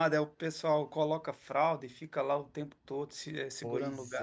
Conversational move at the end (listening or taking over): taking over